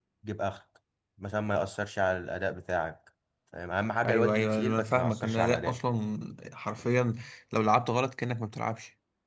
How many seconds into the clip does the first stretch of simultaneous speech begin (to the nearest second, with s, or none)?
4 s